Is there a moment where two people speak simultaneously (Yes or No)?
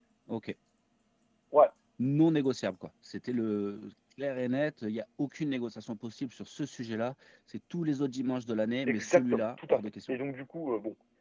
Yes